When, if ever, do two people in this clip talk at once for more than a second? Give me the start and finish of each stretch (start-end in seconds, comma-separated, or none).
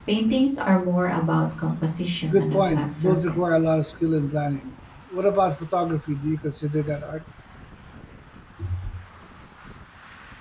2.3-3.6